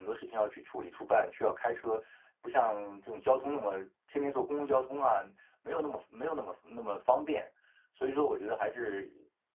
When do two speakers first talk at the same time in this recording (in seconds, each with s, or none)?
none